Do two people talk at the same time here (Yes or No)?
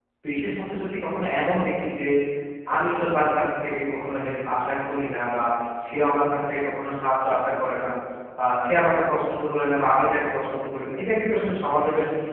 No